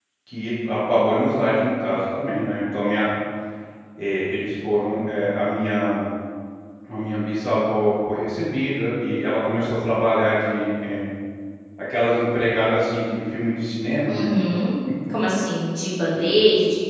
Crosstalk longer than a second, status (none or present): none